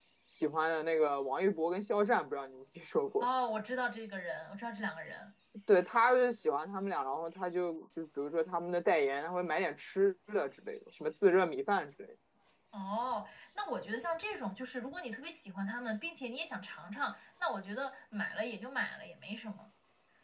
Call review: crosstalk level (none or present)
none